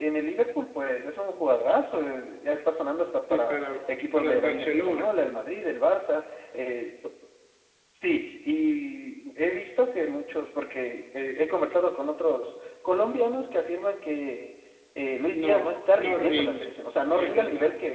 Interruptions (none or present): present